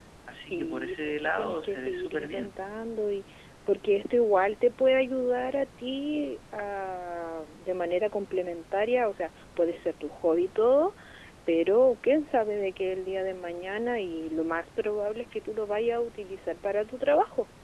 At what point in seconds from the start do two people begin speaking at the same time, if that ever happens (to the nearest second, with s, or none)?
1 s